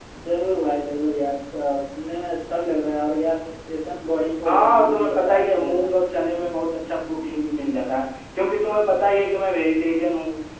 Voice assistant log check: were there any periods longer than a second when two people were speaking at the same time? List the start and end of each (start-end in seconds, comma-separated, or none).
4.4-5.9